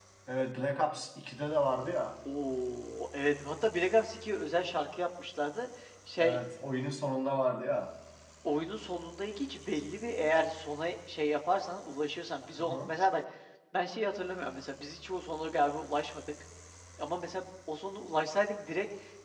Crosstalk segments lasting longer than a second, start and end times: none

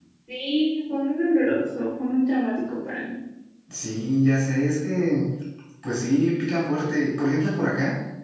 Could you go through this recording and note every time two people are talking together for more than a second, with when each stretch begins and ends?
none

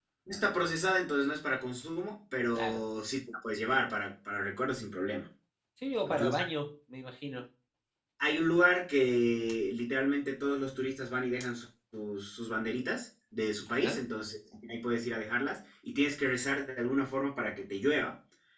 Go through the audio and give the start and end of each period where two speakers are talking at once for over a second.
none

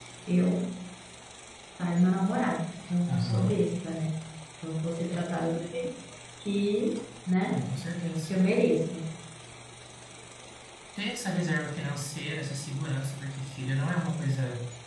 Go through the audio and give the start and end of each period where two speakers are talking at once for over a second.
none

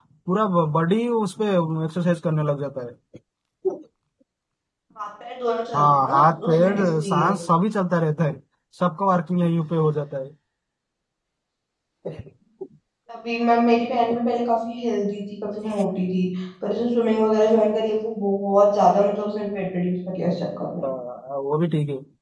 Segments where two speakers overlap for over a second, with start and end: 5.7-7.3

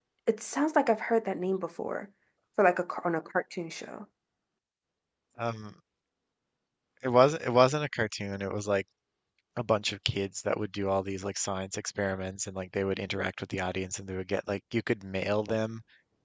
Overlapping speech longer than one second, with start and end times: none

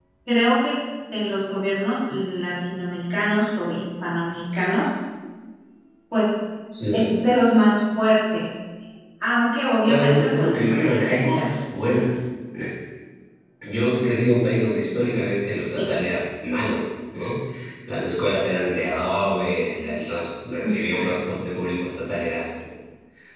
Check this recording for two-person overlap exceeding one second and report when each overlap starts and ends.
9.8-11.5

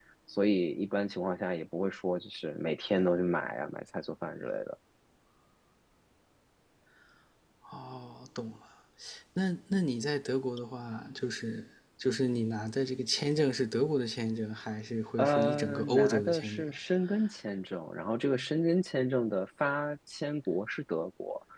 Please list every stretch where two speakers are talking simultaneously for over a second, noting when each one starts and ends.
15.2-16.6

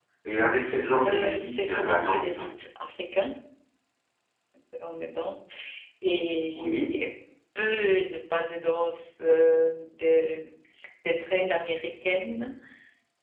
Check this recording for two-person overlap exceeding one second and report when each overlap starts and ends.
1.1-2.4

